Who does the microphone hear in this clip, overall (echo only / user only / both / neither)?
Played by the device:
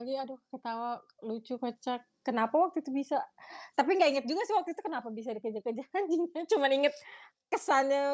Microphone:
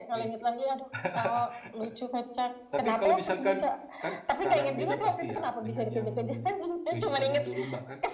both